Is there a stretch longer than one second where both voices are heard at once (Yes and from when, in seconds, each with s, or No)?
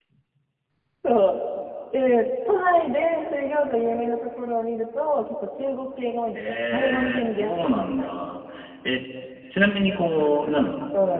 Yes, from 6.3 s